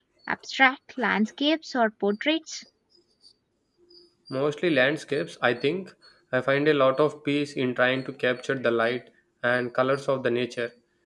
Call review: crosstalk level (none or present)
none